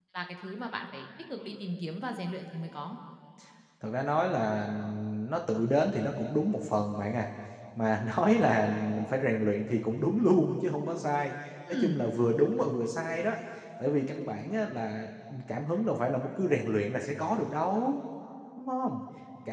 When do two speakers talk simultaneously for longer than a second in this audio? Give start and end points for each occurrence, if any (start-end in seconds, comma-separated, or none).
none